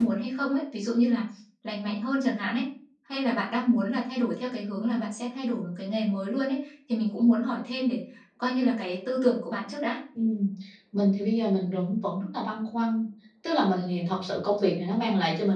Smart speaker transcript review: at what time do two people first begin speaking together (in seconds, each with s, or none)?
none